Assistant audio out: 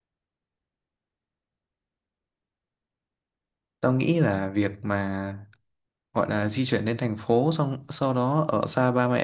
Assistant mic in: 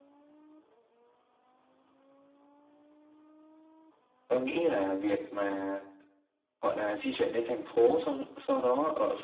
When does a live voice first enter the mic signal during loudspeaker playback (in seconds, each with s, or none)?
none